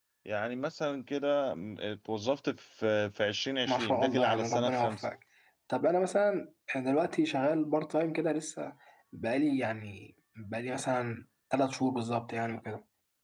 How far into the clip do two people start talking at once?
4 s

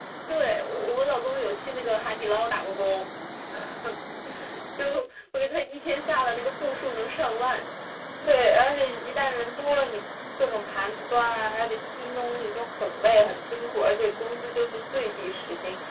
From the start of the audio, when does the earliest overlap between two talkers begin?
none

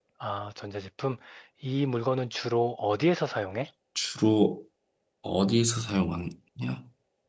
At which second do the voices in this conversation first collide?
none

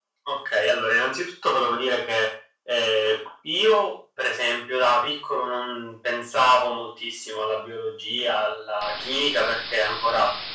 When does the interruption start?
none

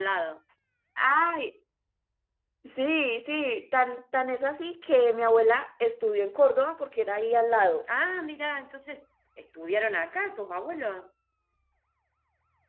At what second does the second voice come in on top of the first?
none

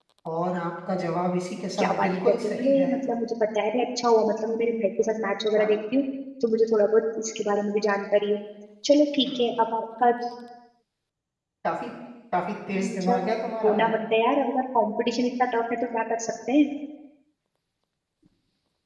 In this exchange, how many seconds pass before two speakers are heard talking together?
2 s

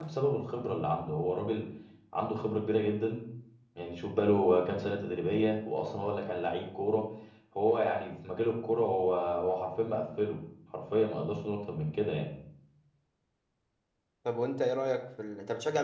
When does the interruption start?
none

